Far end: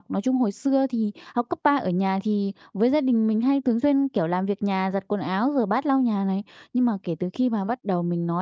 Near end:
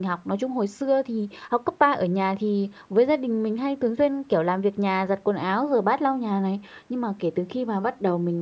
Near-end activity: none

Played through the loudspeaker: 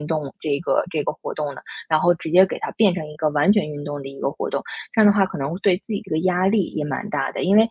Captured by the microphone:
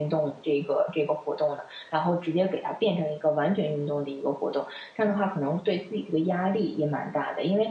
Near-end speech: none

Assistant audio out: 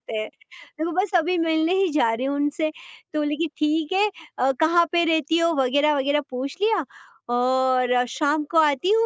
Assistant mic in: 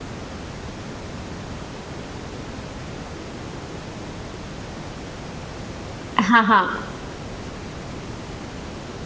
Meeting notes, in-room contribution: present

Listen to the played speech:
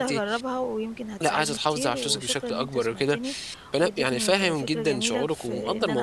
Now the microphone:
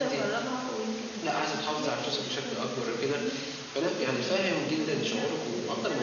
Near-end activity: none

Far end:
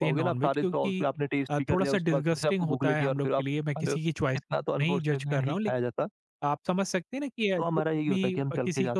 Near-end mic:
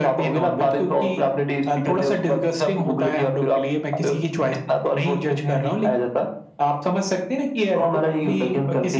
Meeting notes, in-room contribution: none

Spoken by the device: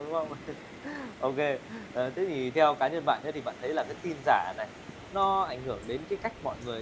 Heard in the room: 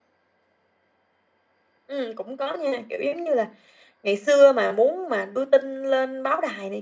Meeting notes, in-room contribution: present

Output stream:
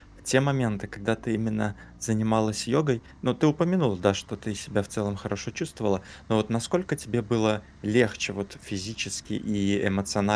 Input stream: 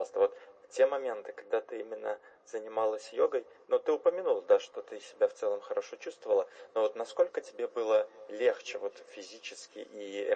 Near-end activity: none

